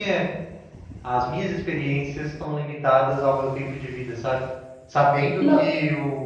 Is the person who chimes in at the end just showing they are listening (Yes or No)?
Yes